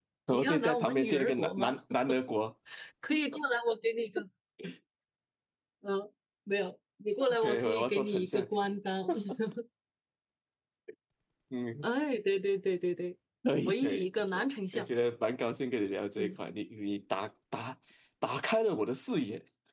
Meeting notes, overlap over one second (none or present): present